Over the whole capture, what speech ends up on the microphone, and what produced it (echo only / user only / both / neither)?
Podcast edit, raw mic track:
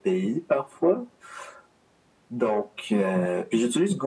echo only